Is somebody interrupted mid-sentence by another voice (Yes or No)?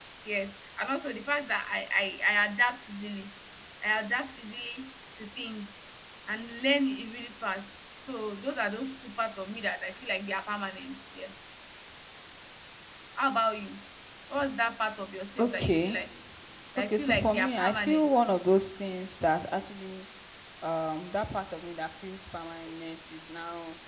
Yes